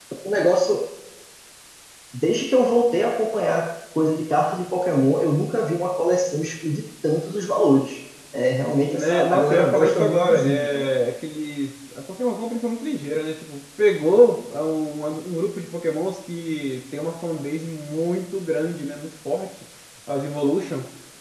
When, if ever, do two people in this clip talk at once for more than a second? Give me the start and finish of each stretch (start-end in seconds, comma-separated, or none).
8.9-10.9